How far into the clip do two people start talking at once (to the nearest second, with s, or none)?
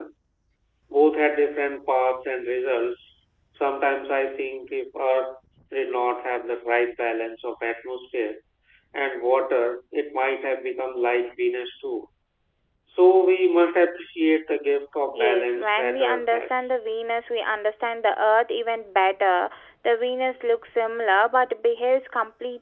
15 s